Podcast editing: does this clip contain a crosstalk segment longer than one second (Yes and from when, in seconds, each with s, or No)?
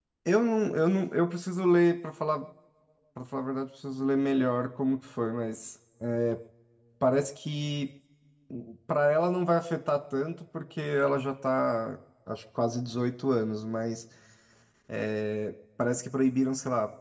No